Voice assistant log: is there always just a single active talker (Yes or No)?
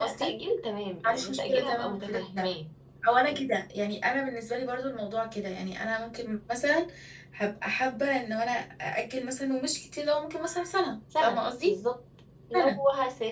No